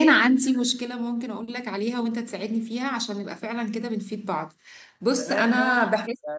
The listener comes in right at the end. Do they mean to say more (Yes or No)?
Yes